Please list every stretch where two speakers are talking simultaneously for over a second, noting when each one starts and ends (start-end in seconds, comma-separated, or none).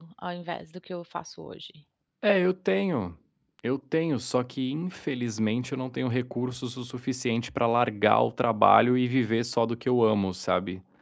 none